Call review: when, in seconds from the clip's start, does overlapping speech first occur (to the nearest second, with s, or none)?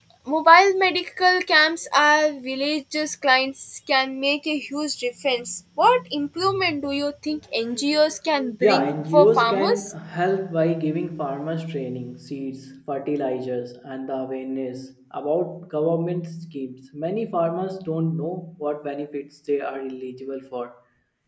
9 s